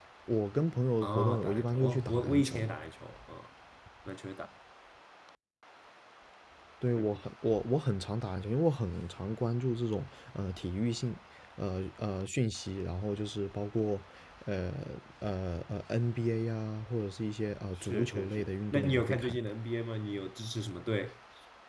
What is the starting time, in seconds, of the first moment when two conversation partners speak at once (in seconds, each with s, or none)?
1.0 s